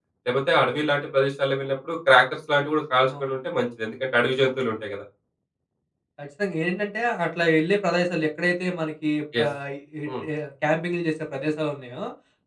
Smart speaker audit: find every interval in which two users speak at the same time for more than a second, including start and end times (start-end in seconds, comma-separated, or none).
none